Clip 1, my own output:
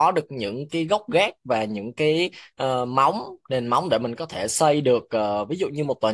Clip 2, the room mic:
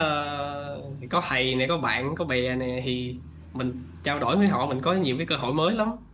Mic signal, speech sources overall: user only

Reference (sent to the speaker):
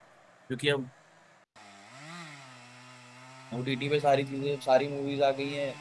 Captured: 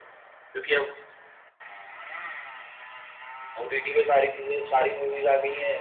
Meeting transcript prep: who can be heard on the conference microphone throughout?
echo only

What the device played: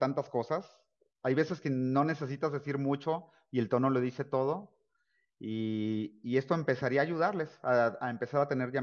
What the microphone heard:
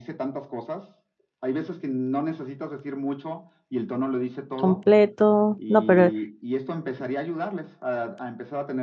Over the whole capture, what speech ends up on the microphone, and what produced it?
both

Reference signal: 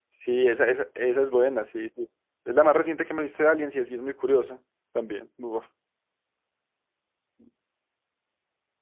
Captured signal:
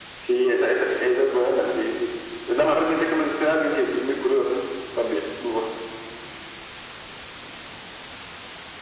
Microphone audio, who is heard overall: echo only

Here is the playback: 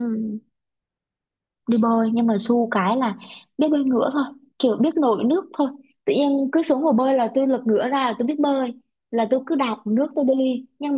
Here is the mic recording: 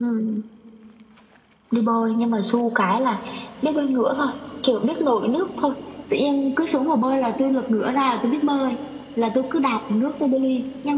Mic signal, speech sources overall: echo only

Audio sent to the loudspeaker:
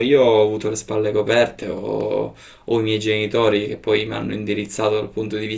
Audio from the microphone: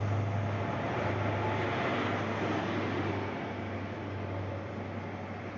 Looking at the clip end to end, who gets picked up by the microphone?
neither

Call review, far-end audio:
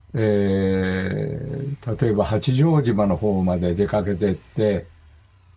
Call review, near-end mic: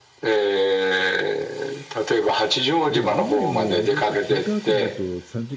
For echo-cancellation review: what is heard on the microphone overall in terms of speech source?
both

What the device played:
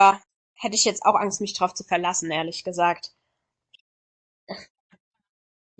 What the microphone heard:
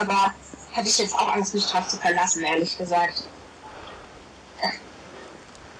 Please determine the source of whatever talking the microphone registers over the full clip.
echo only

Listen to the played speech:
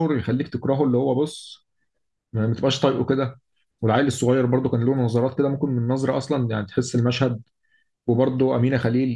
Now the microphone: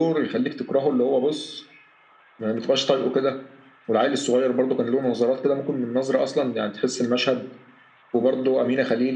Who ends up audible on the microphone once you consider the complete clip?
echo only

